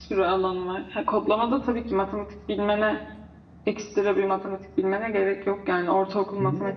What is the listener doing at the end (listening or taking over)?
taking over